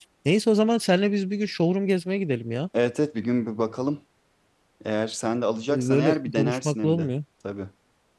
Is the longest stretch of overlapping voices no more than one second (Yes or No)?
No